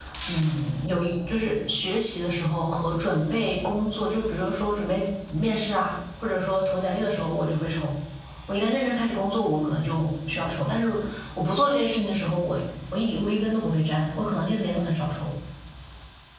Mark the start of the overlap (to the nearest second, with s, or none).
none